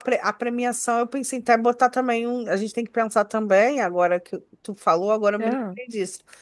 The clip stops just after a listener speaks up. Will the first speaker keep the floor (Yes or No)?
Yes